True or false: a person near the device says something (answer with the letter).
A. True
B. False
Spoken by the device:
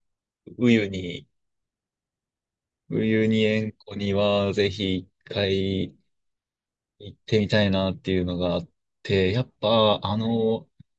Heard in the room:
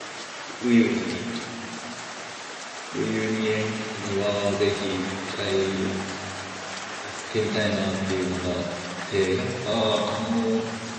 B